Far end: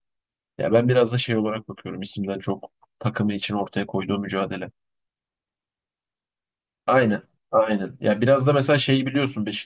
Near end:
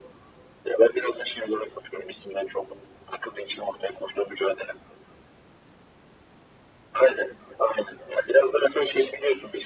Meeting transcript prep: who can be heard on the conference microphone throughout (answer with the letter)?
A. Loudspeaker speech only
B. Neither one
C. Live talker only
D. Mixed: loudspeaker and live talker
A